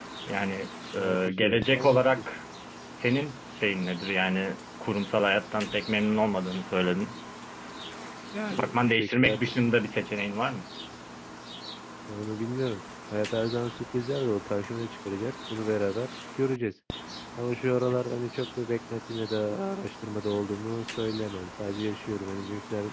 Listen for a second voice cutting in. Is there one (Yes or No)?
Yes